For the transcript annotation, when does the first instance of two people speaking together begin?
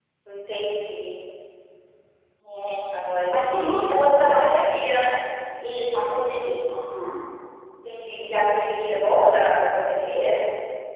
3.3 s

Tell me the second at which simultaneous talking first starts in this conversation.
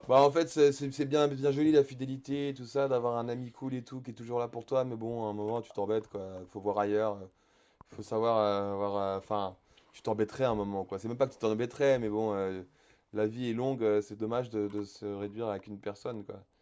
none

